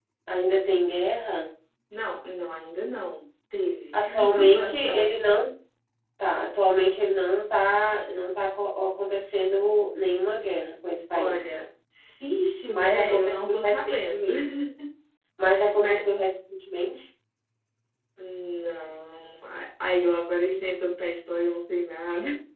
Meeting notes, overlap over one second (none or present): present